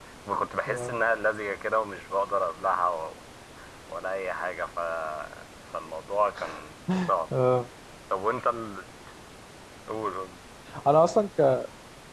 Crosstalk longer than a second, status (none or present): none